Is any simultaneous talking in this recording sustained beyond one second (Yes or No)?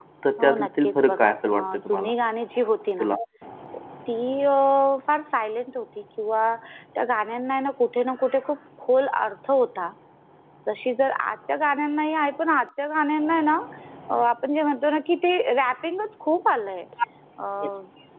Yes